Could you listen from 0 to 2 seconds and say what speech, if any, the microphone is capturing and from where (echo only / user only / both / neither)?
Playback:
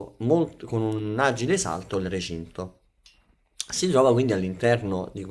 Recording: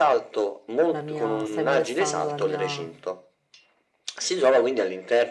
both